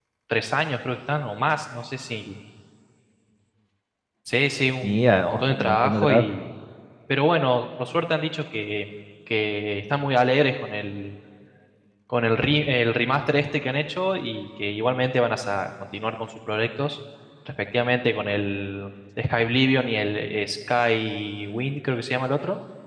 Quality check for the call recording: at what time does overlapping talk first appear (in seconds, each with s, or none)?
4.8 s